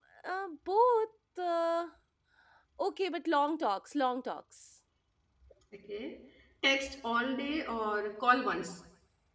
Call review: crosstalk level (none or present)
none